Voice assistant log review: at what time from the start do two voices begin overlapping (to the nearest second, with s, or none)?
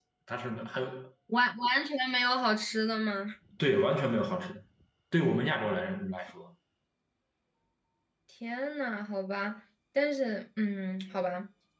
none